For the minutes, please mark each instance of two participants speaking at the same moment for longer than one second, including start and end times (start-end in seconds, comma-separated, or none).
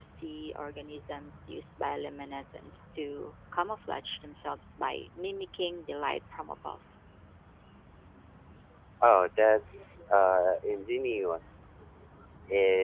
none